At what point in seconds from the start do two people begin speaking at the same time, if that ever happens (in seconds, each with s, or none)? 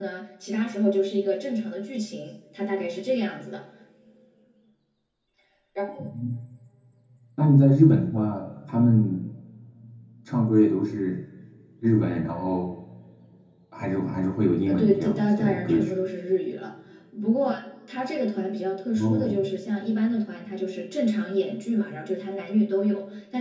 14.7 s